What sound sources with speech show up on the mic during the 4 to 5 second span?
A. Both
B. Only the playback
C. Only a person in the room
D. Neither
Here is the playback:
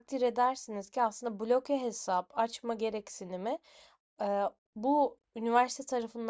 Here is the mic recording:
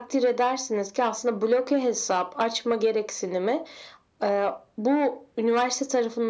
B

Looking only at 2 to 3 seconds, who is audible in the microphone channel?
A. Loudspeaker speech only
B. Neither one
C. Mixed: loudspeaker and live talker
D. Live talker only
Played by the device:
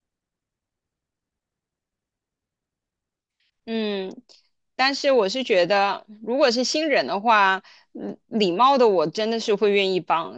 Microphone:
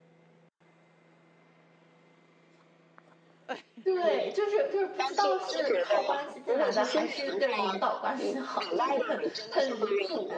B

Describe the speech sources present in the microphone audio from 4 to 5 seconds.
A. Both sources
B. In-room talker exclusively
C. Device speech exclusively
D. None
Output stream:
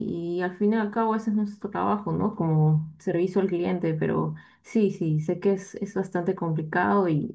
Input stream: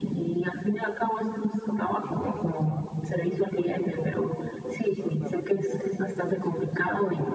A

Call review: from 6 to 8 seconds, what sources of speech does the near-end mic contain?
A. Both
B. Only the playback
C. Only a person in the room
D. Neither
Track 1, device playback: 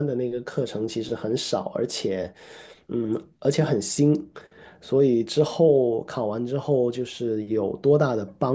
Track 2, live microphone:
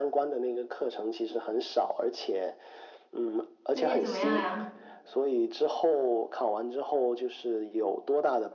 B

